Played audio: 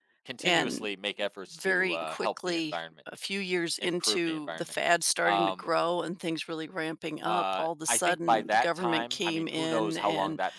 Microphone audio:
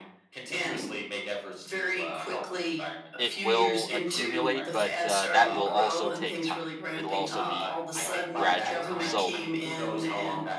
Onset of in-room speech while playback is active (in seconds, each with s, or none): 3.2 s